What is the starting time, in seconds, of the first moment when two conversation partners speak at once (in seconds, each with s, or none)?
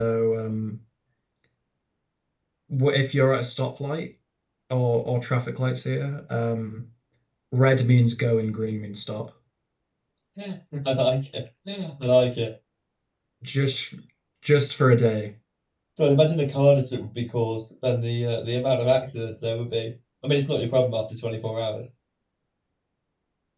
none